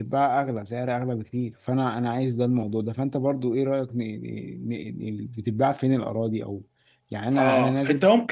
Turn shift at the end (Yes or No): Yes